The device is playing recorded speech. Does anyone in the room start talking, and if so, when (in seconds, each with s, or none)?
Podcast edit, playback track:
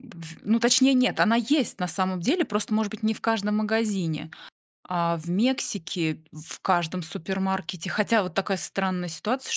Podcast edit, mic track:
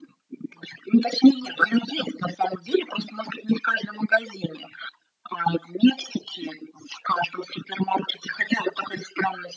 none